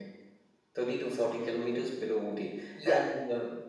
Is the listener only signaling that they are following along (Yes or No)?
Yes